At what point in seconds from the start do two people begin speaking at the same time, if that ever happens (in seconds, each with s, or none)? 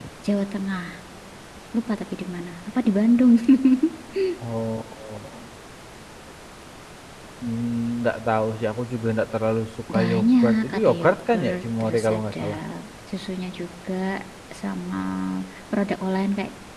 9.9 s